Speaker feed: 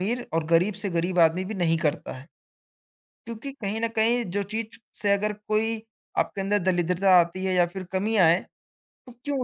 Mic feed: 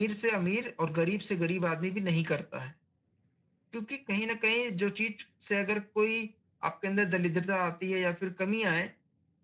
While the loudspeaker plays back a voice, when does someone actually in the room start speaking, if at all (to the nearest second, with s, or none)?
none